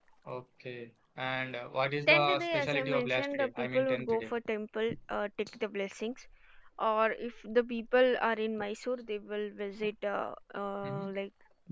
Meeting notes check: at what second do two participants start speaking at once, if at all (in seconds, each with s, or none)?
2.1 s